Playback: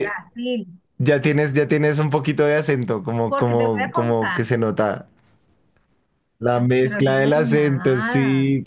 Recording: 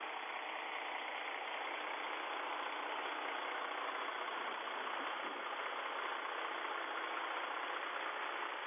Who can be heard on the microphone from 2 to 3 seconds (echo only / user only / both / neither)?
neither